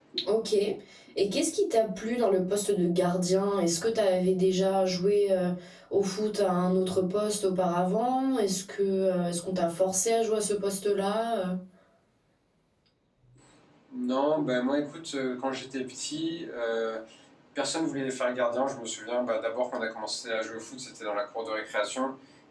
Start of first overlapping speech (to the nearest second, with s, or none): none